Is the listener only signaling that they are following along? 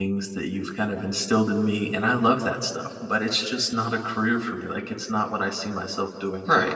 No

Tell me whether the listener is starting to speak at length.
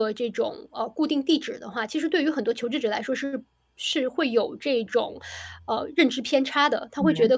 No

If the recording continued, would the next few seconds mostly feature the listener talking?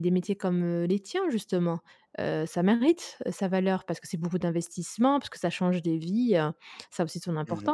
Yes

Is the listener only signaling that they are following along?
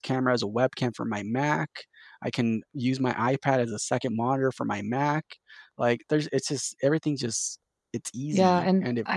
No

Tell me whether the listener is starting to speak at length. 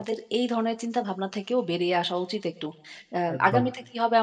No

